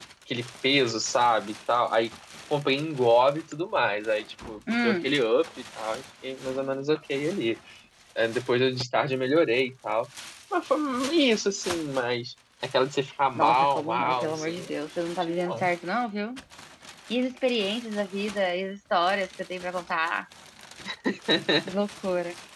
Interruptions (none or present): present